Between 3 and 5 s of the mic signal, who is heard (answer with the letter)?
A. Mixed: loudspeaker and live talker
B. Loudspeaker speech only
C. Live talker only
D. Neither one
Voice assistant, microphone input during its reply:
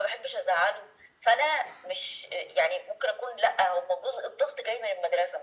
B